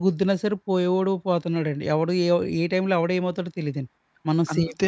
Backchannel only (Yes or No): No